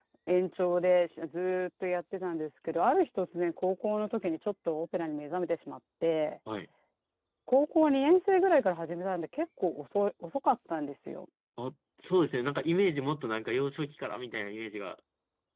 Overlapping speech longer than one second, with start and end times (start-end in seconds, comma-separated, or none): none